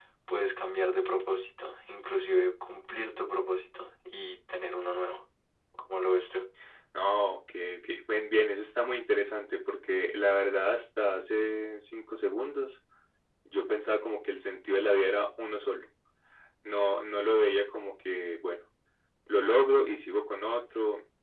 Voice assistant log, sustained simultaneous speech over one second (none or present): none